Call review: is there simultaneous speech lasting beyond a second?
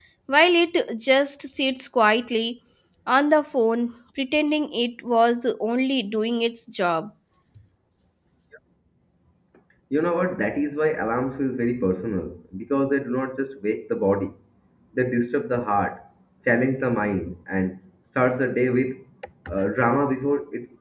No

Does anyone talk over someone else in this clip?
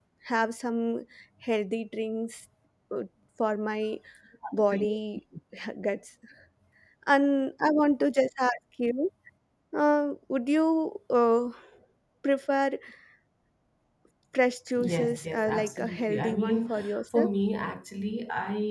Yes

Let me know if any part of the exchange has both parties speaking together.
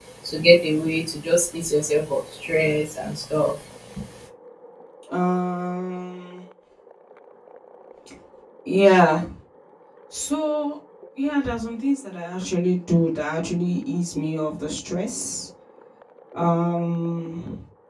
No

